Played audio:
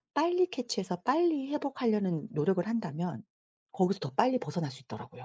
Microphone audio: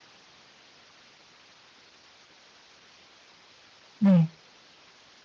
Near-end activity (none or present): present